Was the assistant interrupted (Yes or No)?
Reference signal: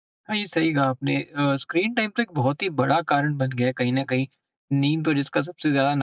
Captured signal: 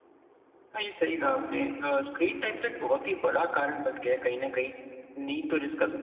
No